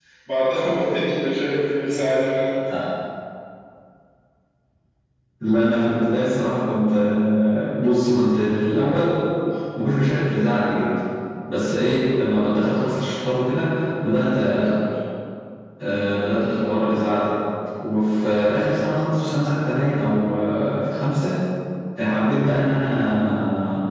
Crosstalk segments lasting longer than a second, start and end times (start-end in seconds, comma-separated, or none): none